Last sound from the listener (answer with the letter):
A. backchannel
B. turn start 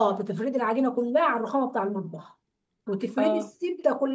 A